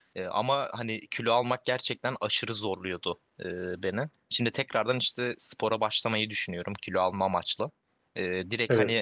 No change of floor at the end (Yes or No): Yes